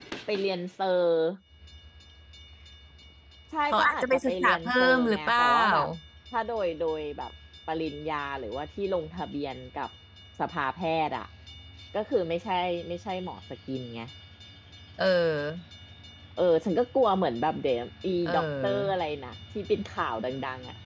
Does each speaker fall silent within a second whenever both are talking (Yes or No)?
No